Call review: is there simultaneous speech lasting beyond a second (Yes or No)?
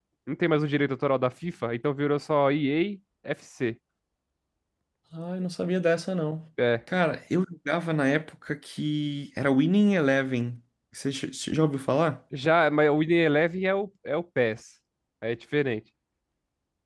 No